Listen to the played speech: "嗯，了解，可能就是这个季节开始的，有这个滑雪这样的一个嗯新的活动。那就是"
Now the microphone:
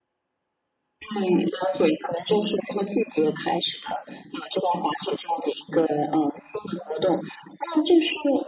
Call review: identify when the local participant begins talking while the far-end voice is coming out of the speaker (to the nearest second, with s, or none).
none